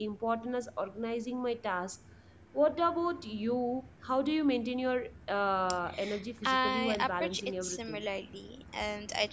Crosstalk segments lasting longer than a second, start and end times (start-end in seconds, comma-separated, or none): 6.4-8.0